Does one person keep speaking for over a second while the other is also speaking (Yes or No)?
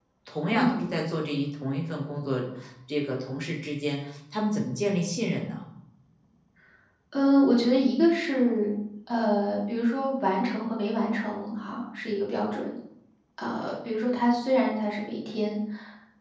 No